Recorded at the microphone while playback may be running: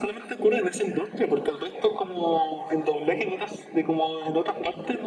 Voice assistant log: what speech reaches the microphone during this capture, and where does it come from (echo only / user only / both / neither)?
echo only